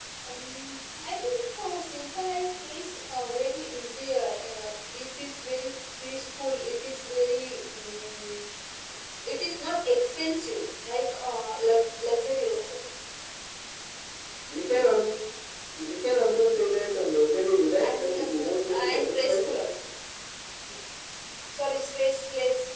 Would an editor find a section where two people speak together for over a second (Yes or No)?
Yes